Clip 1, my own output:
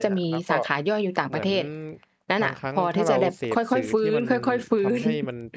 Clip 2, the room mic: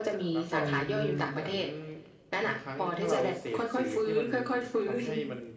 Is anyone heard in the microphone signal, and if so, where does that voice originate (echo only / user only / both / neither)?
both